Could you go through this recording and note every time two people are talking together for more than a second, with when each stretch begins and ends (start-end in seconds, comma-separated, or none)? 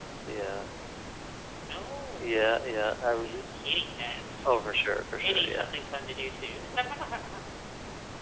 none